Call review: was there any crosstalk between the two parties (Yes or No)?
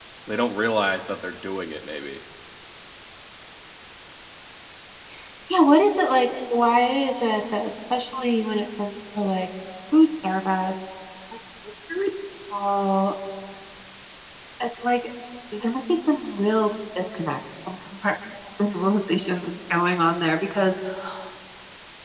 No